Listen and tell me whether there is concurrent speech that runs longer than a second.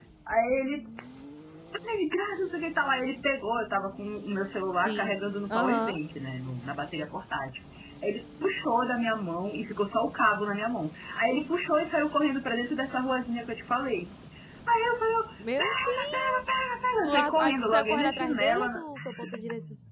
Yes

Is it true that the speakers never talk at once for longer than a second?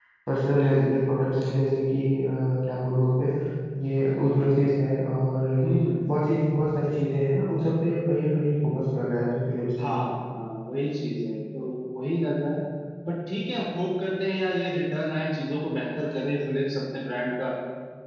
Yes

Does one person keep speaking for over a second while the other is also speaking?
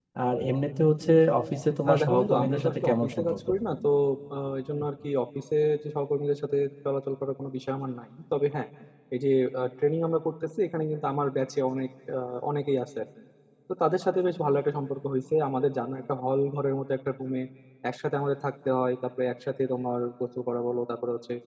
Yes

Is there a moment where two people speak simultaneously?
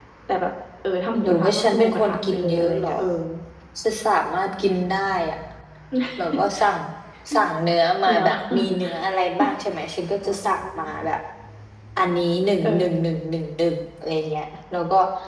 Yes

